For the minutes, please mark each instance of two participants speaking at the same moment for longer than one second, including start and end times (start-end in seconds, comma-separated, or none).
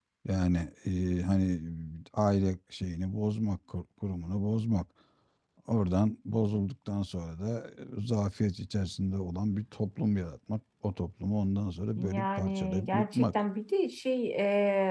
12.0-13.3